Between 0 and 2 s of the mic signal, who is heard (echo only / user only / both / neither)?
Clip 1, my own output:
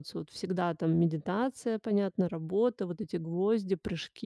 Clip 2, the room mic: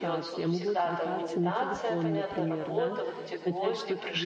both